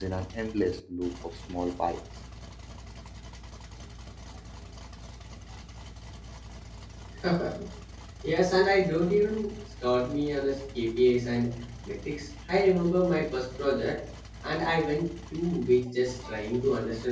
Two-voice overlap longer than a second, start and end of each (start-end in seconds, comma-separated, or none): none